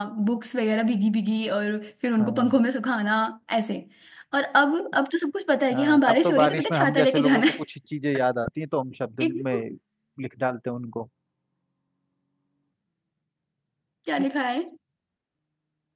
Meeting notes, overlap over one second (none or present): present